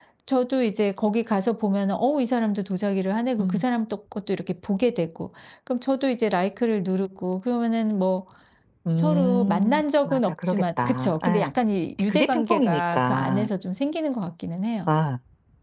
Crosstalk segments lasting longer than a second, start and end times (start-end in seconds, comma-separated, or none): 9.0-11.5, 12.1-13.5